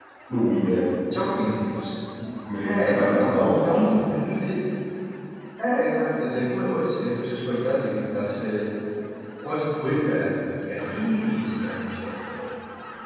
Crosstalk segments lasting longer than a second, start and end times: 2.6-3.9

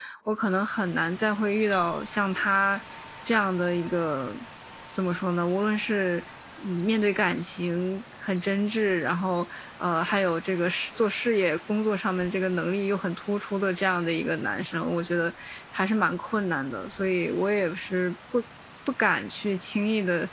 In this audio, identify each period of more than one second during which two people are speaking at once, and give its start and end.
none

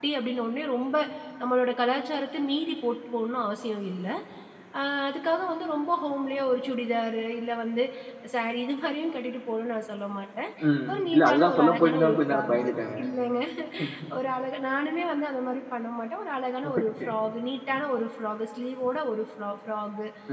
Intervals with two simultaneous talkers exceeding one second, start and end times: 10.9-13.0

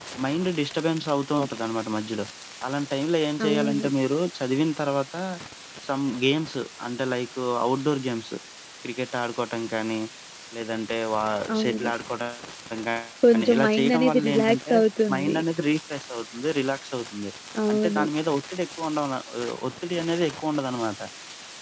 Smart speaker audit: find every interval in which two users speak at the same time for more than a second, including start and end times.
13.3-14.7

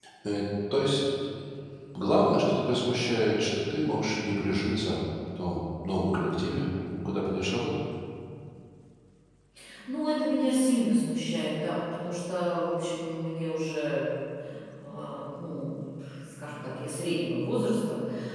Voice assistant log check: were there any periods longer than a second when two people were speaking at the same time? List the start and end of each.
none

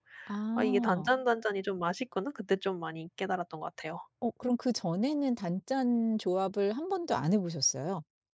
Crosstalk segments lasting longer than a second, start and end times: none

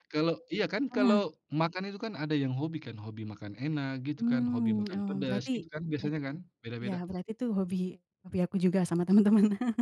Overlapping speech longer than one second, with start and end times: 4.2-5.6

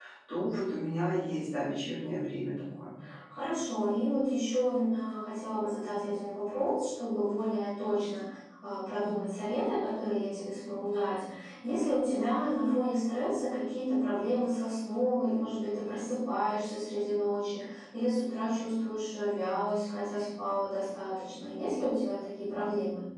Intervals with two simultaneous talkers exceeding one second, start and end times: none

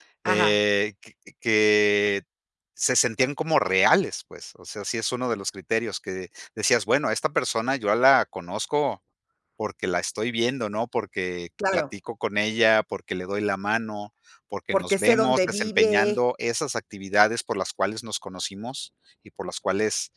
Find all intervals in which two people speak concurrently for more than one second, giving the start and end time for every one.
14.7-16.2

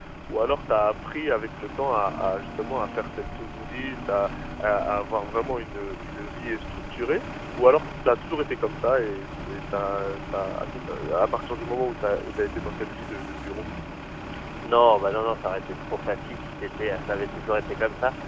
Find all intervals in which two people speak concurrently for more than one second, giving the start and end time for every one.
none

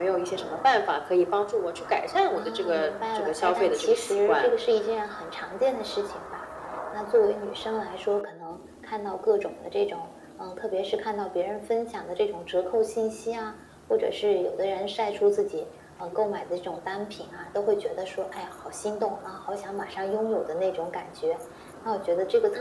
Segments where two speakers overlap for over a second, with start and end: 2.3-4.6

